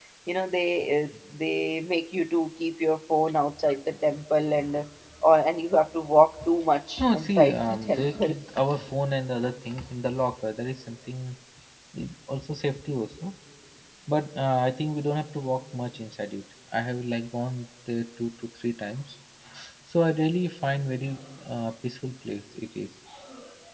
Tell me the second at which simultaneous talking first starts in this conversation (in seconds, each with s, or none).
7.0 s